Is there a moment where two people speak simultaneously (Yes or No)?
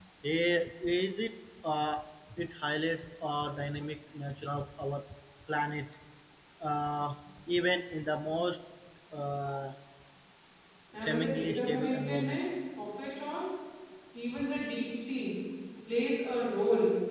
Yes